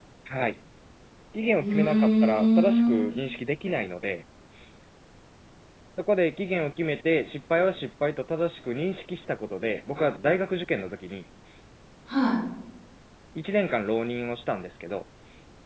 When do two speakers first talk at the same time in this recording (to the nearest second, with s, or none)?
2 s